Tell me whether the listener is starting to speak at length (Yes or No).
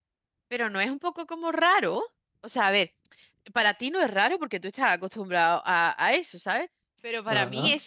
No